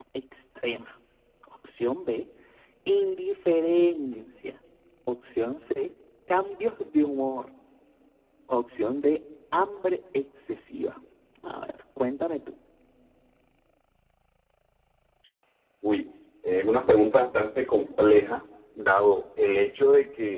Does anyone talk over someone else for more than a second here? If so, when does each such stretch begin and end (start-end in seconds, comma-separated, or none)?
none